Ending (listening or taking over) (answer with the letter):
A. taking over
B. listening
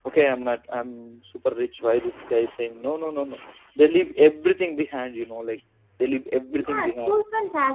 A